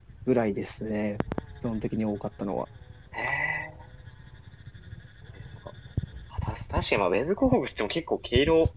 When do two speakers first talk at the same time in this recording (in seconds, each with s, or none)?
none